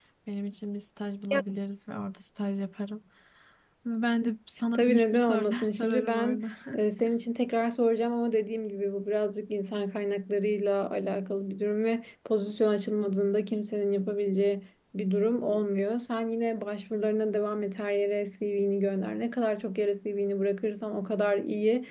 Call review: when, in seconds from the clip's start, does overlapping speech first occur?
4.8 s

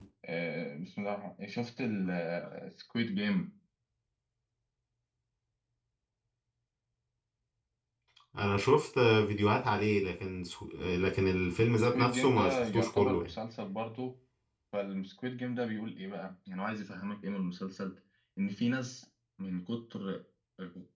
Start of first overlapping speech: 11.7 s

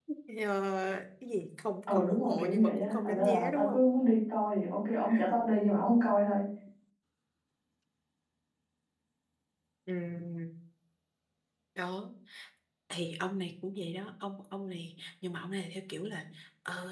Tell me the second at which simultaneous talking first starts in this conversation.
1.9 s

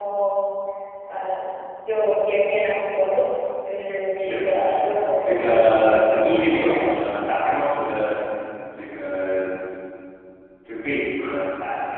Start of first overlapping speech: 4.2 s

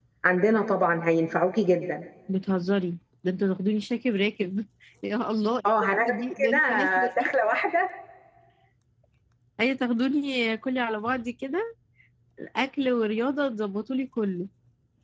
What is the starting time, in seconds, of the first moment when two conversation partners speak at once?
5.6 s

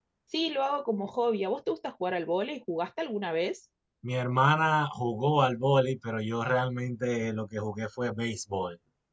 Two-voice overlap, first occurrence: none

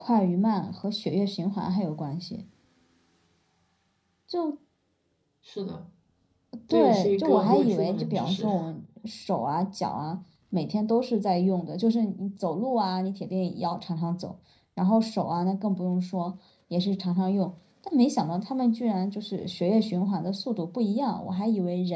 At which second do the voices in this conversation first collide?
6.7 s

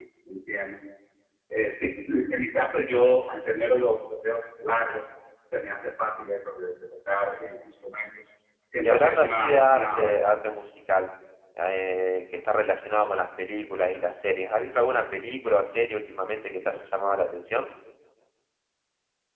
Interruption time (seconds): 8.8 s

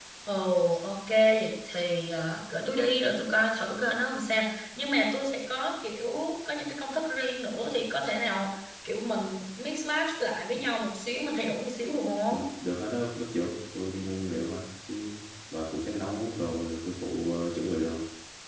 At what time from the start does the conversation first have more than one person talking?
none

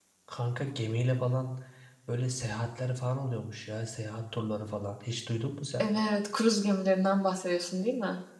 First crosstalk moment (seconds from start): none

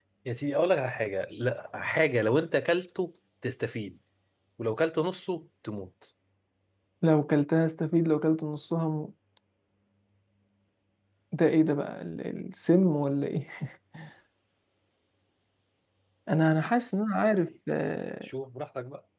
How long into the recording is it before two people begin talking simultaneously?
none

